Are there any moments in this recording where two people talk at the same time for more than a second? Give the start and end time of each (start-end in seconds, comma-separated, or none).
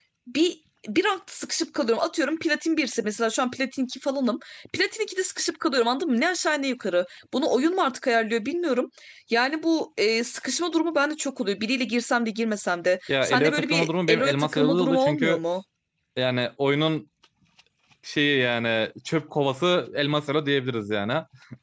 13.1-15.4